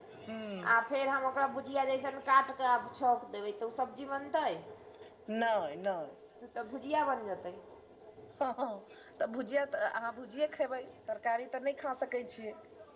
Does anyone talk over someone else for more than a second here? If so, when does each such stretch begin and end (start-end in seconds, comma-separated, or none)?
none